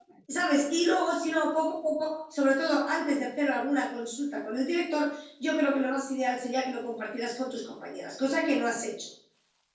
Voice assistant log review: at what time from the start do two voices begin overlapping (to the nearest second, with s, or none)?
none